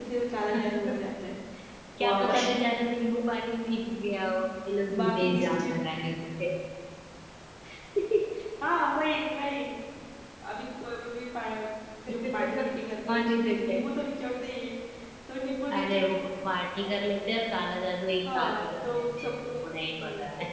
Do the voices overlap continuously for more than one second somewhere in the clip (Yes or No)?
Yes